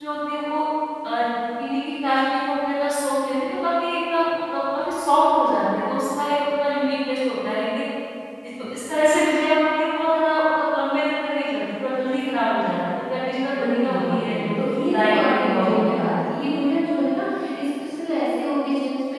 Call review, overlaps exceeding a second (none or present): present